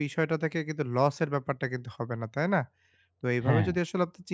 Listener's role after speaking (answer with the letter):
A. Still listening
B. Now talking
A